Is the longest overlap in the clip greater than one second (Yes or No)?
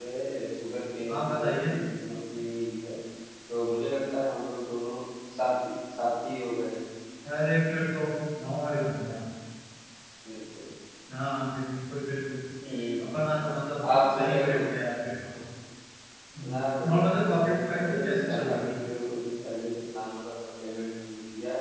Yes